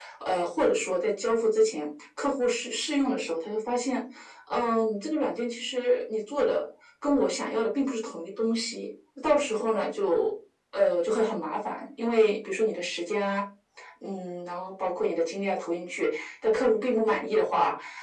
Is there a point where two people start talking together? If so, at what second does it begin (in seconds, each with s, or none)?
none